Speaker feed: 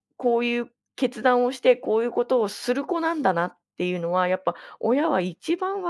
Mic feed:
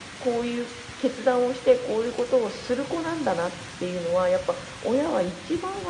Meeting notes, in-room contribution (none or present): none